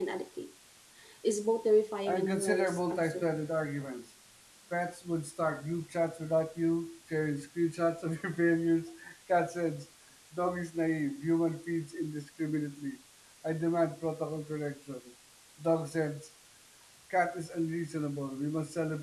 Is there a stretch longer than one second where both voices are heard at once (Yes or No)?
Yes